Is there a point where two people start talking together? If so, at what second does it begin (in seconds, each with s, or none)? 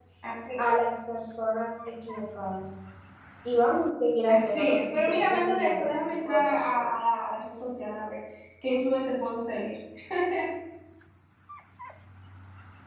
4.3 s